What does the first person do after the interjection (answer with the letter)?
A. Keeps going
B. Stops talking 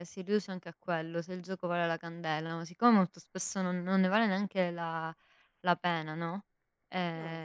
A